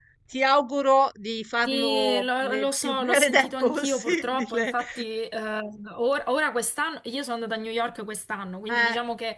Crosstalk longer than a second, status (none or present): present